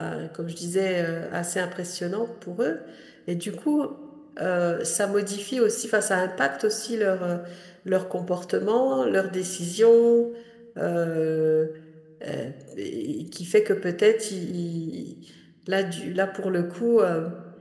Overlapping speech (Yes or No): No